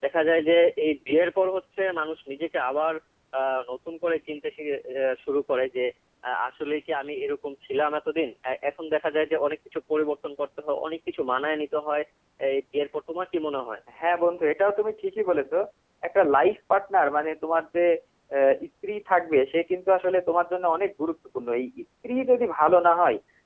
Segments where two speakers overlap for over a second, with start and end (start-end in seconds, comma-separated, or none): none